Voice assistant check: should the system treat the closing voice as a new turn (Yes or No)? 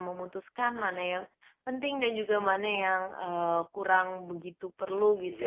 Yes